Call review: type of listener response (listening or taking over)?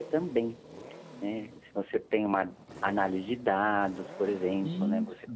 listening